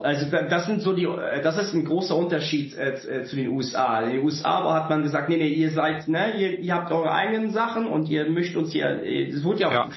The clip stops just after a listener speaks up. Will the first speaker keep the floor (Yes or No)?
No